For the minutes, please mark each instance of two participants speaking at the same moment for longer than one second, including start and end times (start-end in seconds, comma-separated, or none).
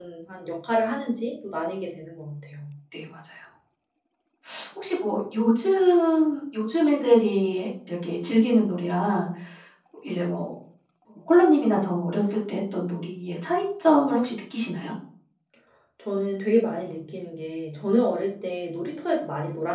none